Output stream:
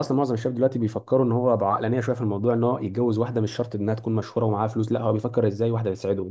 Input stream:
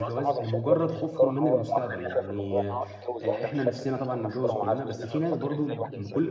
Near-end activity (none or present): present